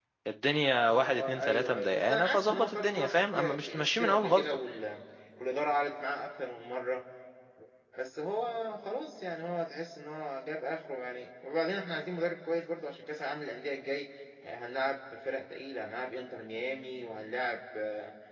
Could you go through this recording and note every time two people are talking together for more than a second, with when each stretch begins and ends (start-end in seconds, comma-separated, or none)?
0.8-4.6